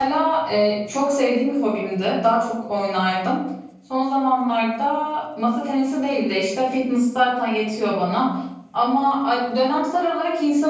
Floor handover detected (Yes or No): No